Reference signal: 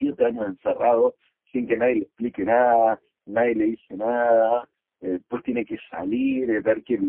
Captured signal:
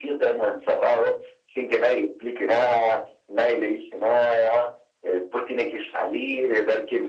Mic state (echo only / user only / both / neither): echo only